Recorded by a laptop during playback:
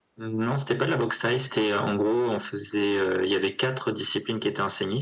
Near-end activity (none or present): none